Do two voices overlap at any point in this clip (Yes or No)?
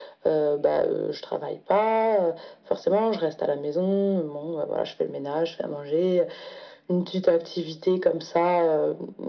No